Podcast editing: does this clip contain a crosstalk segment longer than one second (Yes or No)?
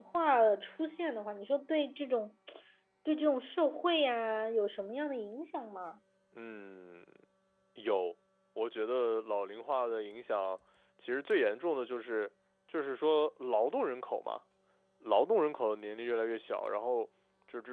No